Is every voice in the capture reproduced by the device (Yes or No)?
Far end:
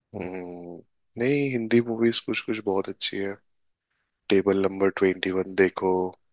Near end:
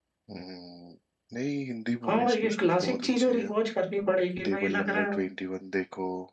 No